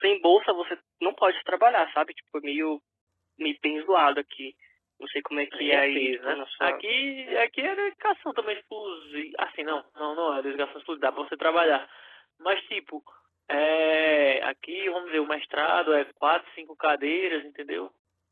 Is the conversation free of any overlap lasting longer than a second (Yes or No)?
No